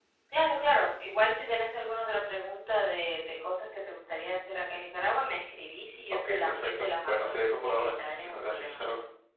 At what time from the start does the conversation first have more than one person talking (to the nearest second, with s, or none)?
6 s